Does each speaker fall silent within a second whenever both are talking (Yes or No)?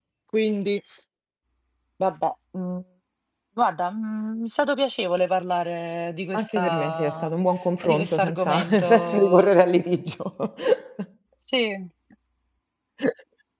No